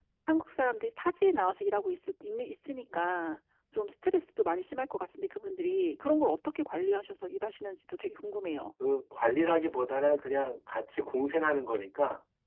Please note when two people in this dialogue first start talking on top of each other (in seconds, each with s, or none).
none